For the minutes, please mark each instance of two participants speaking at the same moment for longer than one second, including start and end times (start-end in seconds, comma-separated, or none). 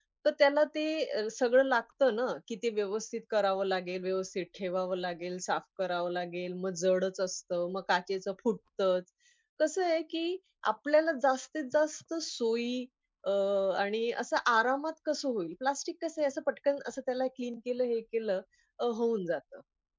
none